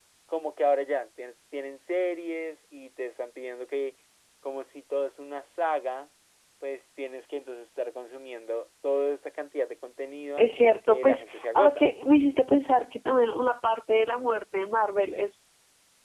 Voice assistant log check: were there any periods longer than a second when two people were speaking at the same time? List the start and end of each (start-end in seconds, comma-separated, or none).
10.4-11.9